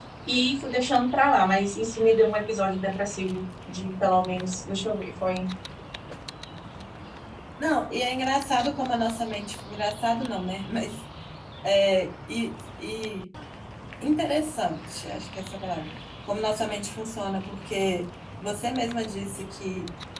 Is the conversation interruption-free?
Yes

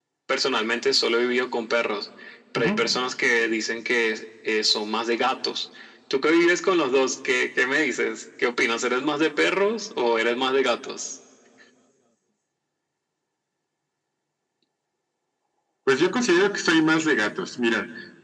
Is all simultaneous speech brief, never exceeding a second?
Yes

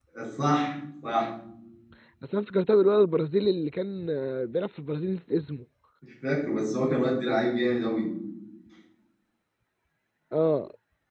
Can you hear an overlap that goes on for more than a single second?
No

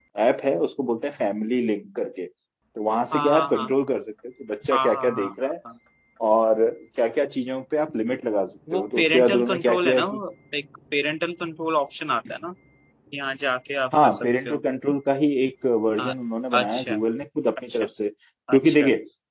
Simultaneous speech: Yes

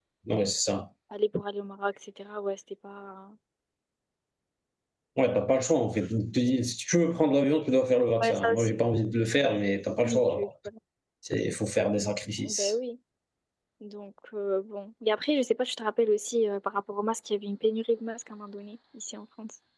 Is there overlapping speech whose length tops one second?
No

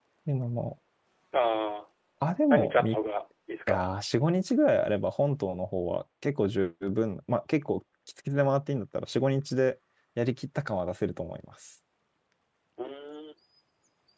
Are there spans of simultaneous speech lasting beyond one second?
No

